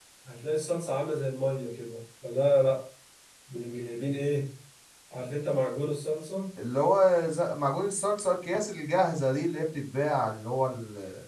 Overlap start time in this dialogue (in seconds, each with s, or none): none